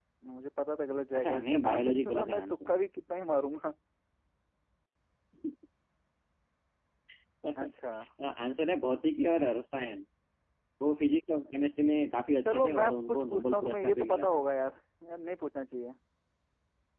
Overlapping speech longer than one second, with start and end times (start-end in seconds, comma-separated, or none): 1.1-2.7, 12.4-14.4